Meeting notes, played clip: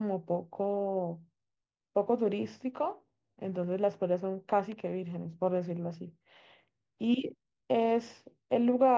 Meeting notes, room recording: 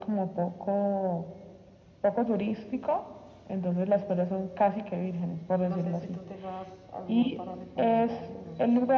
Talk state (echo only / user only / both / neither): both